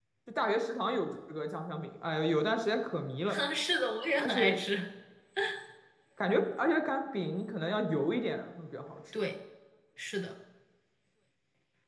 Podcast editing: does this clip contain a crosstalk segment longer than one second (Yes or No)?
No